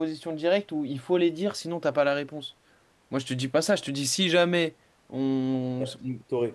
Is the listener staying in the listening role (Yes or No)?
No